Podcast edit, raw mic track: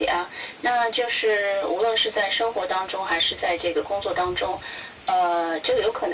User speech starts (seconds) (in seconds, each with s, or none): none